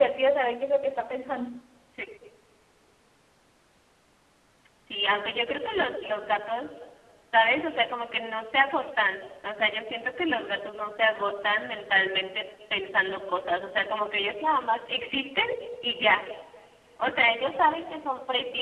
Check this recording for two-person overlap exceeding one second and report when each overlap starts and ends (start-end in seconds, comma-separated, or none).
none